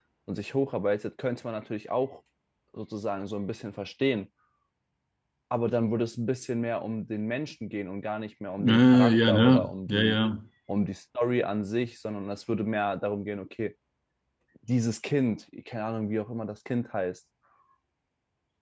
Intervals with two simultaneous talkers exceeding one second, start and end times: 8.6-10.2

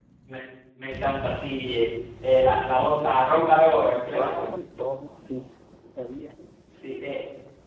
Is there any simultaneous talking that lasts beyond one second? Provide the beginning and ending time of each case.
none

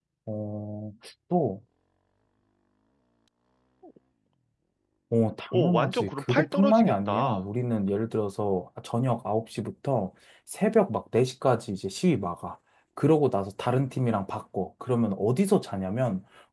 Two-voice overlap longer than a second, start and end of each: 5.5-7.5

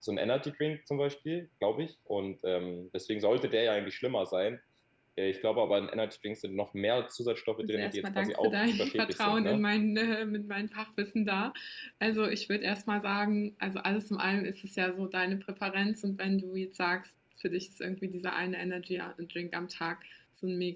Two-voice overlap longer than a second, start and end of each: 7.6-9.6

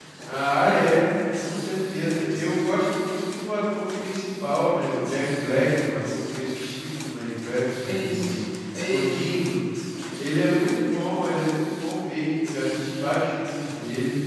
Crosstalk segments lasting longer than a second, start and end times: none

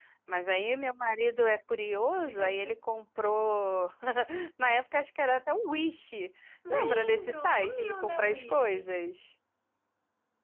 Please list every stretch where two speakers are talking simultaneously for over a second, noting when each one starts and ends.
6.7-8.9

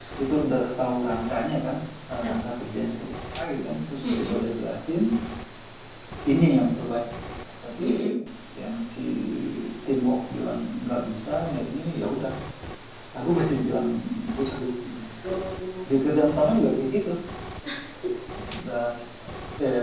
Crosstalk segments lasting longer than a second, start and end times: none

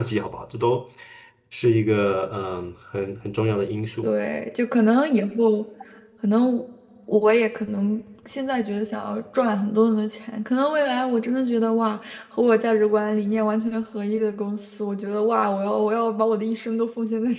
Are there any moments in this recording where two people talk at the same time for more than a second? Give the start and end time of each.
none

